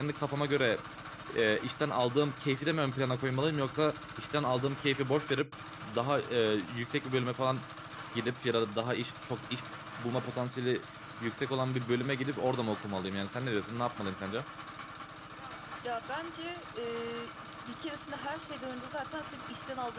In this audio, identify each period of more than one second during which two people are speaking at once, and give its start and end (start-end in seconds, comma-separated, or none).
none